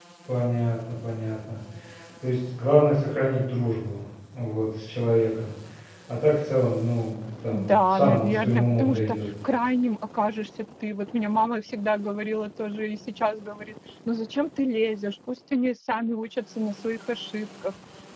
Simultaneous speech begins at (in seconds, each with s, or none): 7.5 s